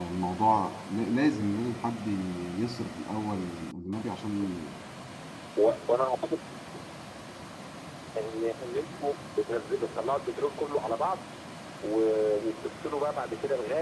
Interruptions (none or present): none